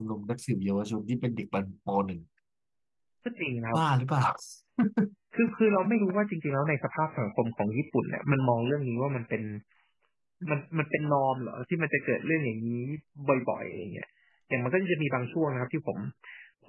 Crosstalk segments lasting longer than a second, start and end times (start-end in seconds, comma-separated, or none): none